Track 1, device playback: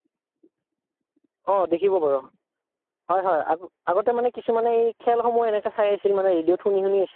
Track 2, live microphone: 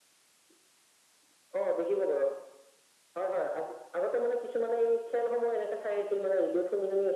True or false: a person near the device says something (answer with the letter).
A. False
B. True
A